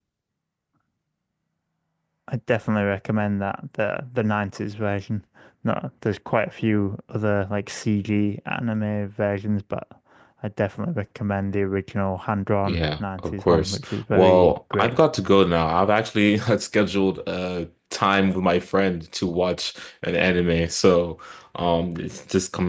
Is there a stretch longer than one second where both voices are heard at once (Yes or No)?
Yes